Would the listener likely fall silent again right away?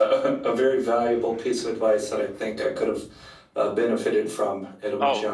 No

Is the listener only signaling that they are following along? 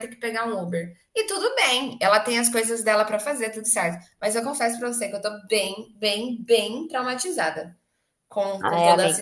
No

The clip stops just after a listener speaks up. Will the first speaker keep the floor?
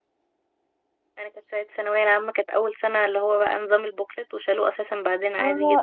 No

